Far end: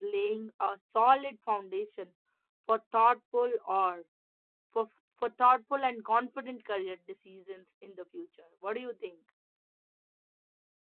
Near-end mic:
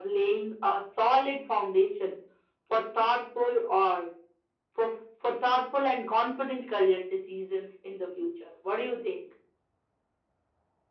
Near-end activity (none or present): none